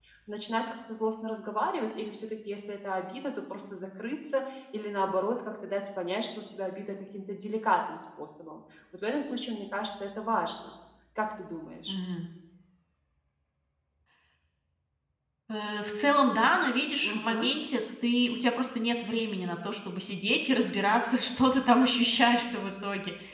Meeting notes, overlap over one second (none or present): none